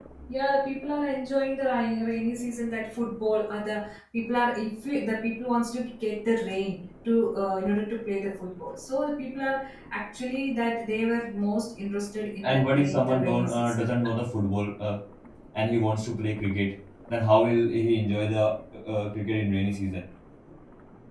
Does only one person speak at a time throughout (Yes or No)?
No